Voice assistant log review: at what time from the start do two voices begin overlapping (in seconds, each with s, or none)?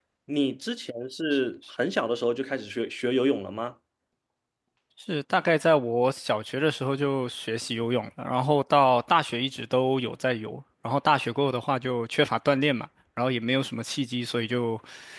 none